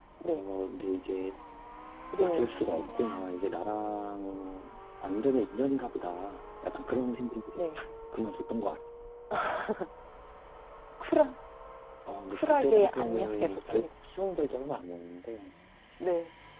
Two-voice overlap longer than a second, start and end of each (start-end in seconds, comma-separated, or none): 12.3-13.9